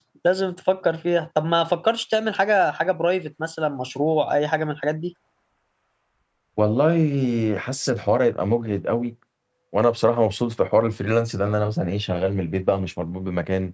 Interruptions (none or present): none